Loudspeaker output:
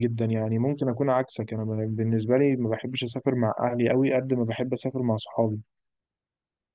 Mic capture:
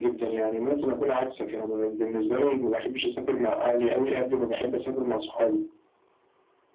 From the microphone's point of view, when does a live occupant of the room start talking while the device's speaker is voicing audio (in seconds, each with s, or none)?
none